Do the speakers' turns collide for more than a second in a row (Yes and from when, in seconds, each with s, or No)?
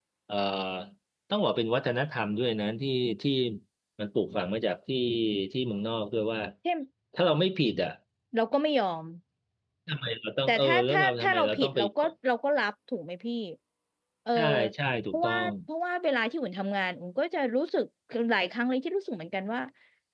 Yes, from 10.5 s